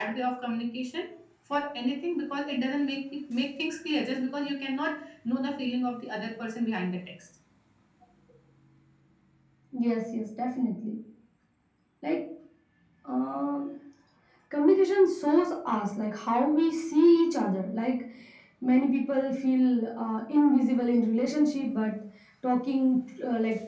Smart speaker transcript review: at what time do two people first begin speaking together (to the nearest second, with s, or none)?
none